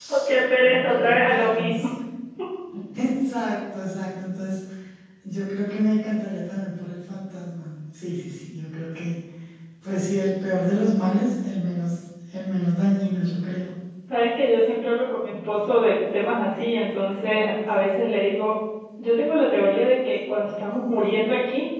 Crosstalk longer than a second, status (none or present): present